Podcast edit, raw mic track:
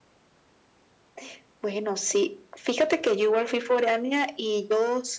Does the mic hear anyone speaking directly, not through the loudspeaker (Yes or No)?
No